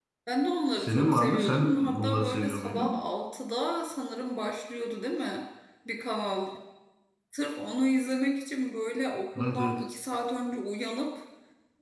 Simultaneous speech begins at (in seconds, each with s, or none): 0.8 s